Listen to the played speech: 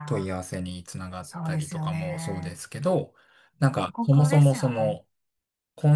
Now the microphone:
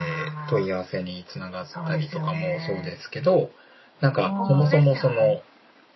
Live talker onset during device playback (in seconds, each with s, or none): 4.2 s